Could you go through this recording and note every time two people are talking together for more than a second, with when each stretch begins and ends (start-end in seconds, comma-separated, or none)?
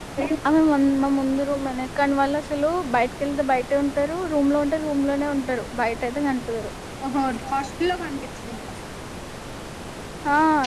none